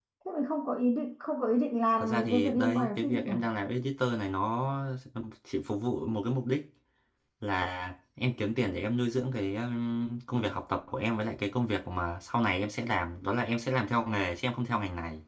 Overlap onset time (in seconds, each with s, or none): 2.0 s